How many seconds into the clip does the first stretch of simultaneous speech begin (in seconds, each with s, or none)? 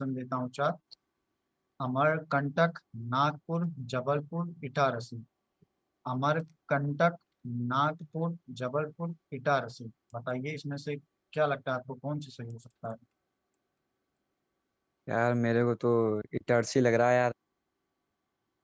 none